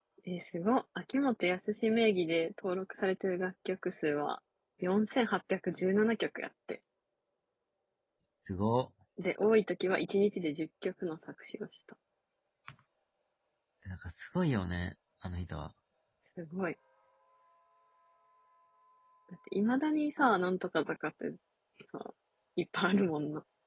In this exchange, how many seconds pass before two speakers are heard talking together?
none

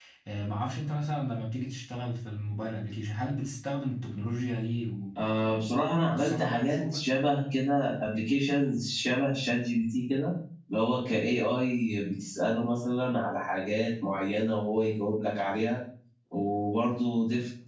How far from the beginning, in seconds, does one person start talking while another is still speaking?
5.2 s

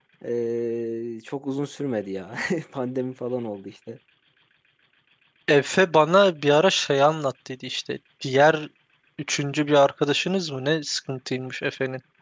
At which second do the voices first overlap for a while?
none

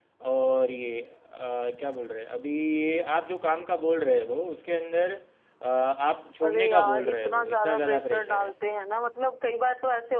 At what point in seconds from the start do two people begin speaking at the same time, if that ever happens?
6.4 s

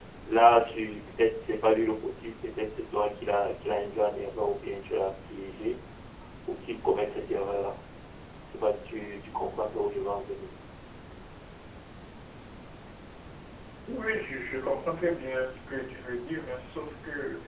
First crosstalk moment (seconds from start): none

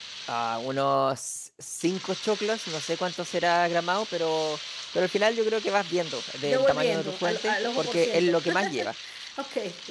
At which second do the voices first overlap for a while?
6.5 s

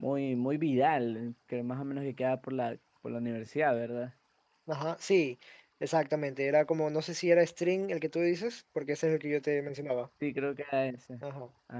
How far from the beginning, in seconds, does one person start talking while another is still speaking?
none

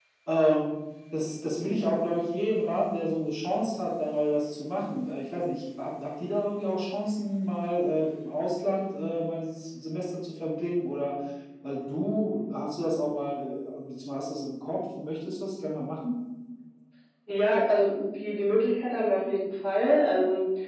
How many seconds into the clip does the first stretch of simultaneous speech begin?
none

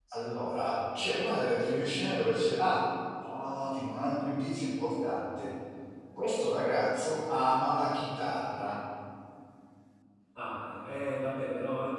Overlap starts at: none

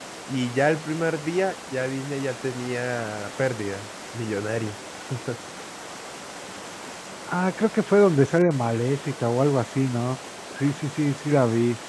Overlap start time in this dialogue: none

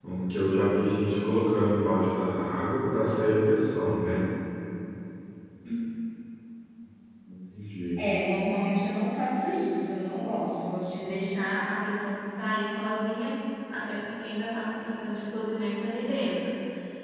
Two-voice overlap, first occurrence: none

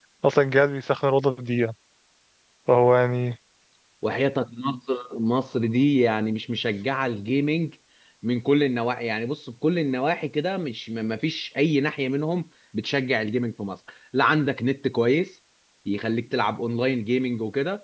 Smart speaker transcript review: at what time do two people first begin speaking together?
none

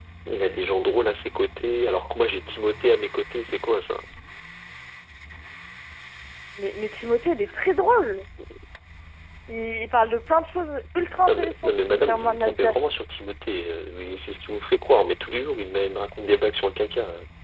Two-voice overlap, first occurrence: 11.3 s

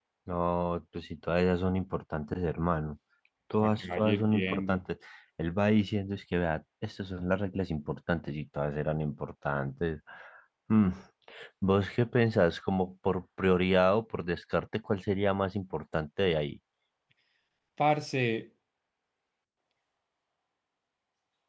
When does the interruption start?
3.6 s

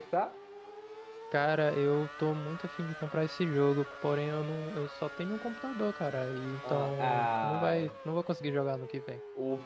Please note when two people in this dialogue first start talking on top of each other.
6.6 s

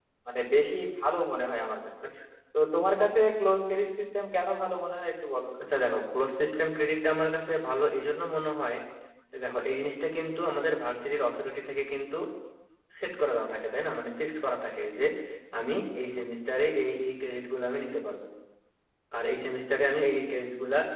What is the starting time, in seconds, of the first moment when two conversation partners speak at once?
none

